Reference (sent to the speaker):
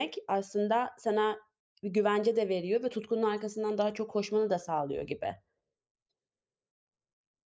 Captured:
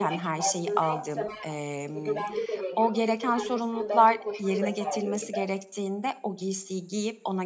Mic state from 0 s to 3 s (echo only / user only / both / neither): both